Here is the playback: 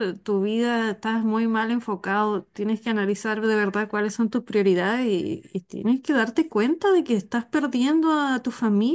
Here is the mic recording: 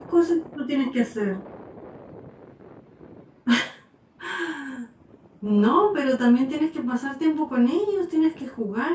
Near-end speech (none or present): present